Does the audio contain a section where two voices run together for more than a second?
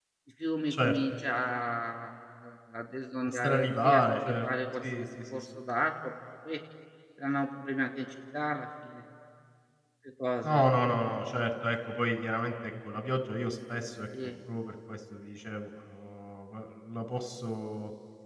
Yes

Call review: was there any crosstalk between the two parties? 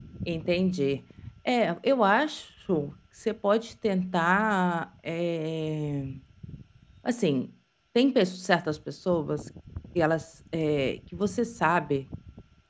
No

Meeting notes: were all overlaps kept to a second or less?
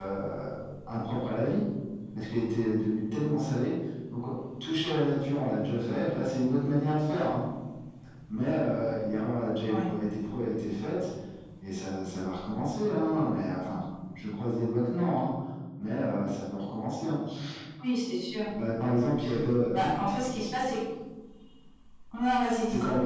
Yes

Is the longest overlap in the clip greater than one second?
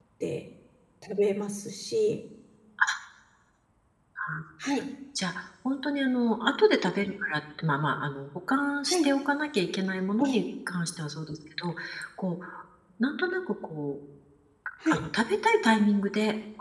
No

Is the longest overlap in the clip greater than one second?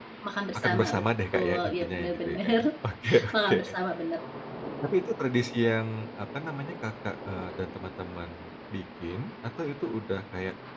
Yes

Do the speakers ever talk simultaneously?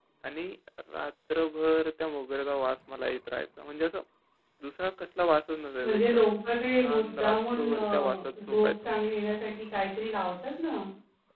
Yes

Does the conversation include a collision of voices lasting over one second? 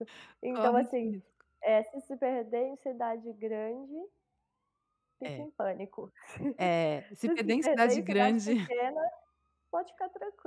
Yes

